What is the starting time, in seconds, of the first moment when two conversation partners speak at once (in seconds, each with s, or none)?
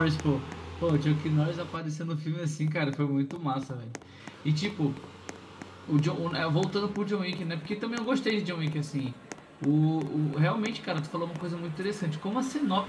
none